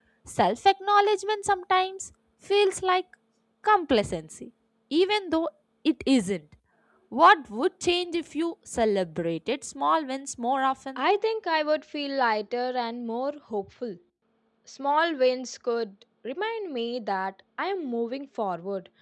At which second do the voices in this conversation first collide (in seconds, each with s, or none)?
none